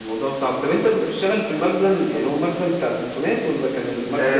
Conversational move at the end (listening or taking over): taking over